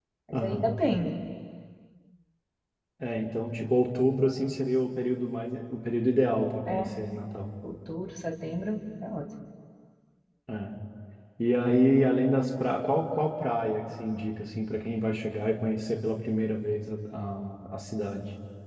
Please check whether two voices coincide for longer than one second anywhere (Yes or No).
No